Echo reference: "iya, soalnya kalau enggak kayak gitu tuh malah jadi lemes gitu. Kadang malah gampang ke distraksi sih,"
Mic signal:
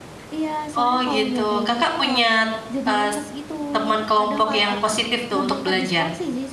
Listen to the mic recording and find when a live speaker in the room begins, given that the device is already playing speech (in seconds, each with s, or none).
0.8 s